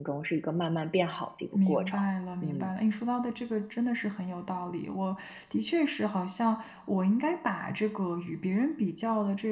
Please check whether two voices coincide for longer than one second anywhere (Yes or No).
No